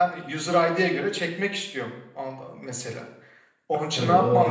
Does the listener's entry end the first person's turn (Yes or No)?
Yes